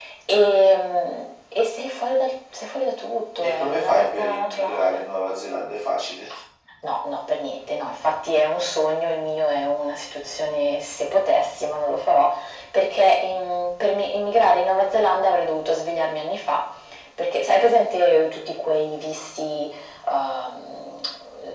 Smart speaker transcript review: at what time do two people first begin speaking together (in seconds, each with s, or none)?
3.4 s